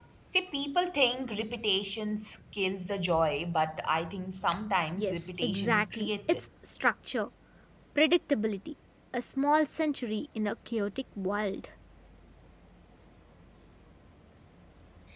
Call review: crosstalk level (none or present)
present